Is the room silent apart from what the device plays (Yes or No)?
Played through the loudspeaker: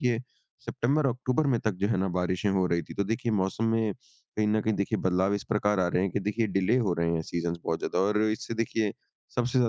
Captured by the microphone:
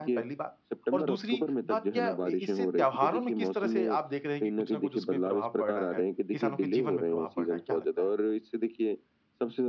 No